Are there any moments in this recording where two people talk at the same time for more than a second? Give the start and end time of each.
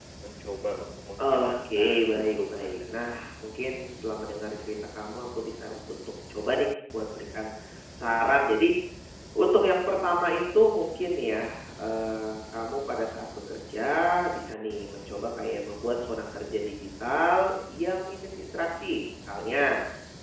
1.2-3.1

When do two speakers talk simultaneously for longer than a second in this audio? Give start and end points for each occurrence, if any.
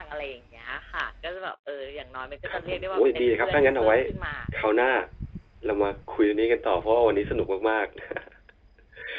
2.5-4.0

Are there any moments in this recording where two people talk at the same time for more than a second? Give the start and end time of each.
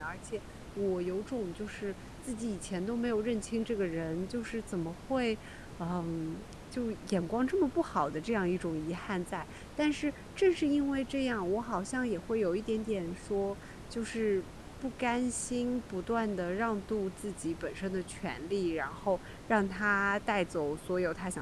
none

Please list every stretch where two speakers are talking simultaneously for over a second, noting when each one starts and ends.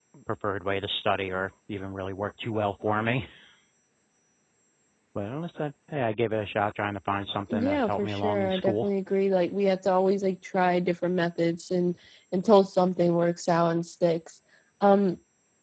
7.5-8.9

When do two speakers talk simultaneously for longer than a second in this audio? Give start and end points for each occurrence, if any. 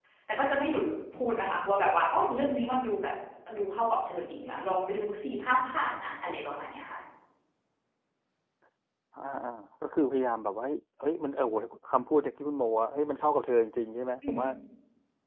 none

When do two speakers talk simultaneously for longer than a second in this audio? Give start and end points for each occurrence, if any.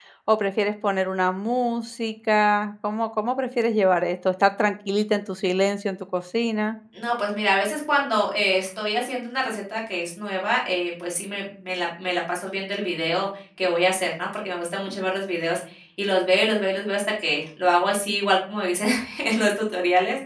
none

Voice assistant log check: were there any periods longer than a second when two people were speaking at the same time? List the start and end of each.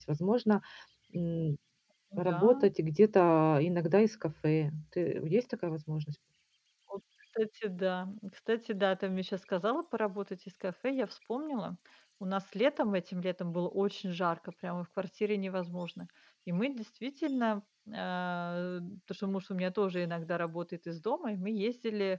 none

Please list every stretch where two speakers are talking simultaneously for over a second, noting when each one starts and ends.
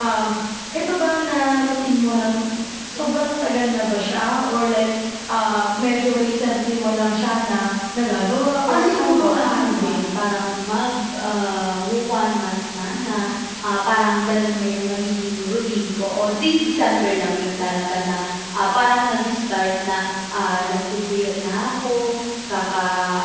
8.7-9.9

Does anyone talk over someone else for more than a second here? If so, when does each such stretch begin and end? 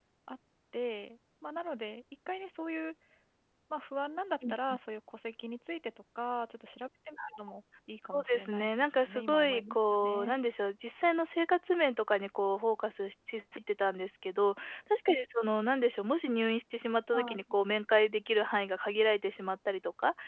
8.1-10.4

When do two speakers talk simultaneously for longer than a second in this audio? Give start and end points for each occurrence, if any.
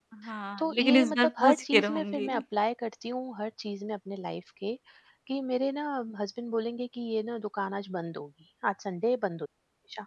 0.6-2.3

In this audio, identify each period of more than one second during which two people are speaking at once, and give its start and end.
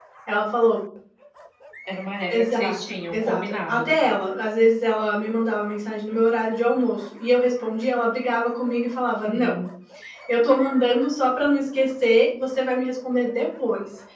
2.3-3.9

